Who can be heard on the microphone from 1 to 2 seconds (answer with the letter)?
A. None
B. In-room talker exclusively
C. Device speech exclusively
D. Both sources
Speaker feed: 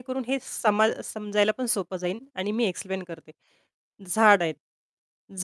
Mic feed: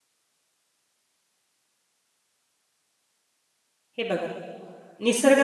A